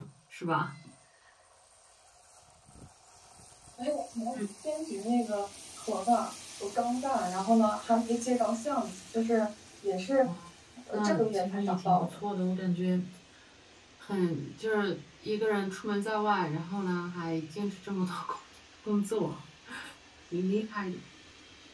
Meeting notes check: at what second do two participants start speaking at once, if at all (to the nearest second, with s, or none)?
11 s